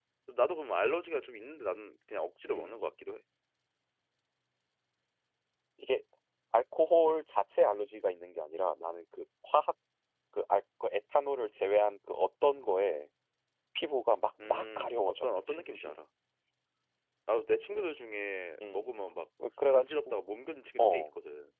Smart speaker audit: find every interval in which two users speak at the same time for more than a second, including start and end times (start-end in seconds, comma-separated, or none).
14.4-15.9